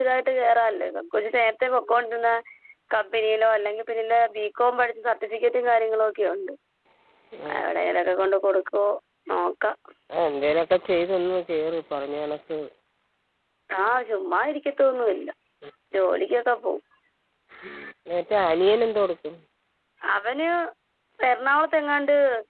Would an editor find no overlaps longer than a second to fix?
Yes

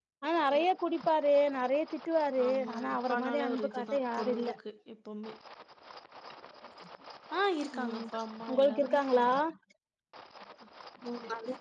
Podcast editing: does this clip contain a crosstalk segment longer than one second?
Yes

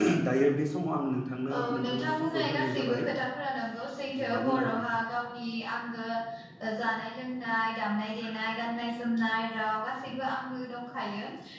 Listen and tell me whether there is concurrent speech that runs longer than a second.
Yes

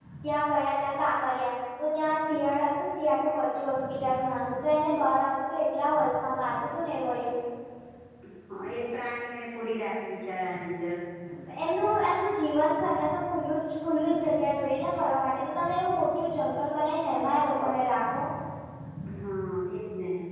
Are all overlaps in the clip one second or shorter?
Yes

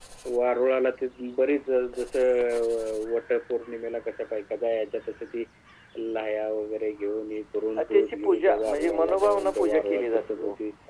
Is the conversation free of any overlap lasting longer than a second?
No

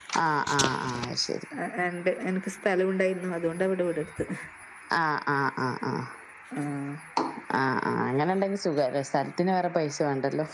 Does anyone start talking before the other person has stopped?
No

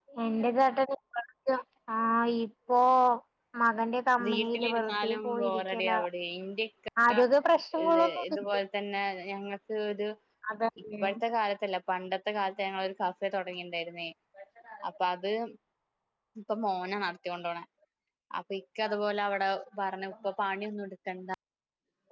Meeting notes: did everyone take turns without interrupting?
No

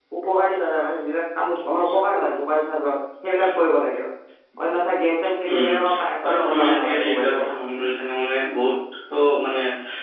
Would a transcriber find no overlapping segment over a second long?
No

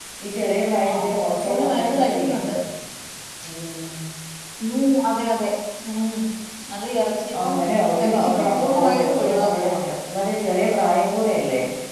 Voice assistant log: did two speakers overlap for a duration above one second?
Yes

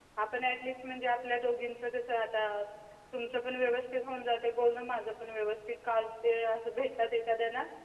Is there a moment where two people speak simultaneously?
No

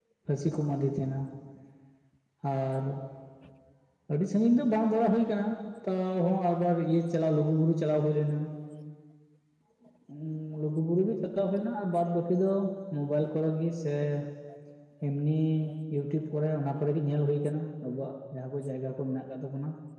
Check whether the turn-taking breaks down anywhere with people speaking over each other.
No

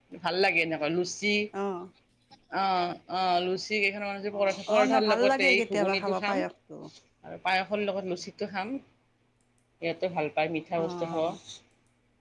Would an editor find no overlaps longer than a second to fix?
No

